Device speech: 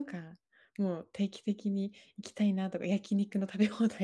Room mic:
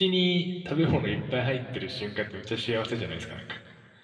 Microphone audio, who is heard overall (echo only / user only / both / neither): user only